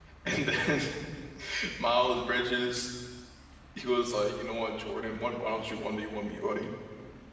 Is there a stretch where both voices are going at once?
No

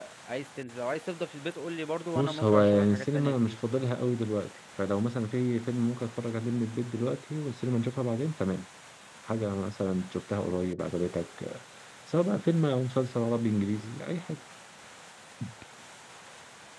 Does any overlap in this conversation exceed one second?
Yes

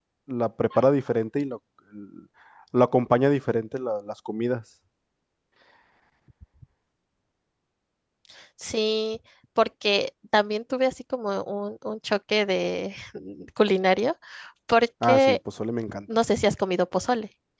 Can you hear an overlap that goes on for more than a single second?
No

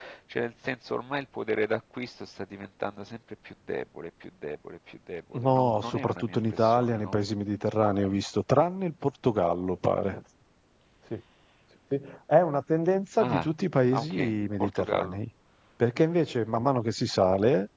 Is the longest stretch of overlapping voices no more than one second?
No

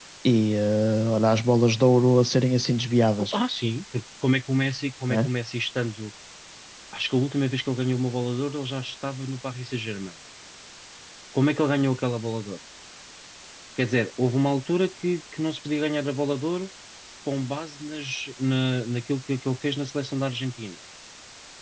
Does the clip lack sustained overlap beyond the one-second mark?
Yes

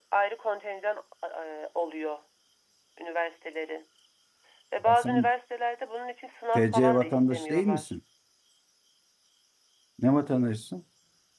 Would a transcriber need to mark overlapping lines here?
Yes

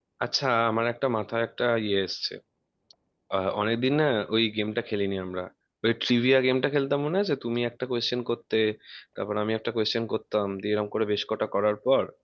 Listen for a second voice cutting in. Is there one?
No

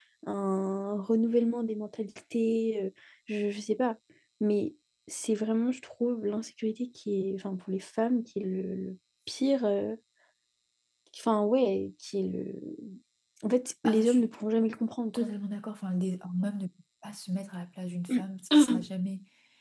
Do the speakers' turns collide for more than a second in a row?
No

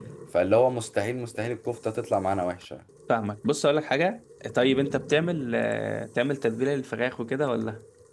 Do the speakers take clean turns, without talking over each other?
Yes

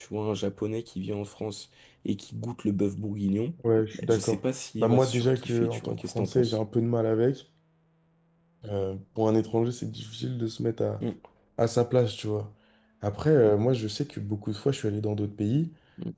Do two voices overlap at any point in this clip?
Yes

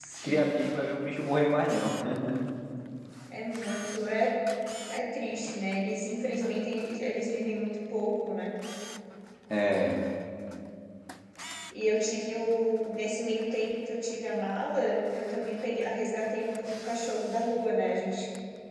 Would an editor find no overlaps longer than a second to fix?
Yes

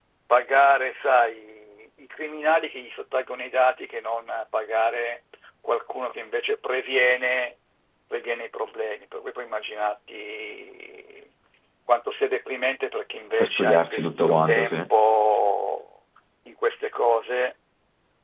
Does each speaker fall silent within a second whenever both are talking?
No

